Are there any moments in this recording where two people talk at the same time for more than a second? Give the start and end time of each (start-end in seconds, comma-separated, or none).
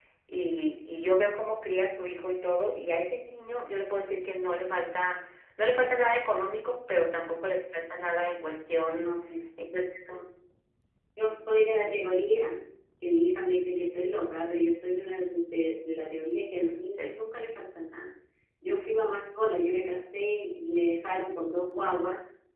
none